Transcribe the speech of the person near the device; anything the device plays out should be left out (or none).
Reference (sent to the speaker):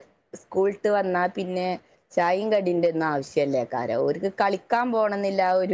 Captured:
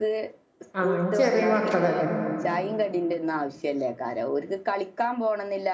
ആഹ് ചെറിയ മക്കളല്ലേ